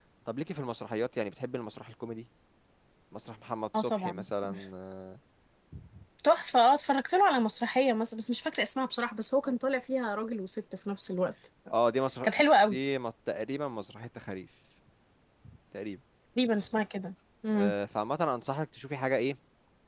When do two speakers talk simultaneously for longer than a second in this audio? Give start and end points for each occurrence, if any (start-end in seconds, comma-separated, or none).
none